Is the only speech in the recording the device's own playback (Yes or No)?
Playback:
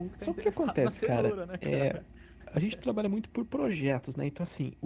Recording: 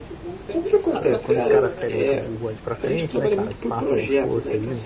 No